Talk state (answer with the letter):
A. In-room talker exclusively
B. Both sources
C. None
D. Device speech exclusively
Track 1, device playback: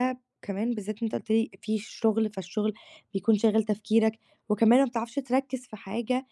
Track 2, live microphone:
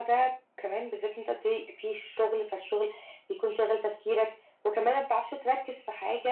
D